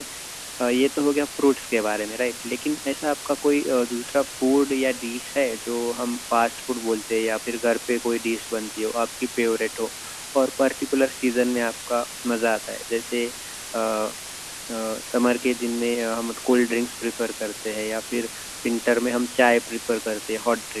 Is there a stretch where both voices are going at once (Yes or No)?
No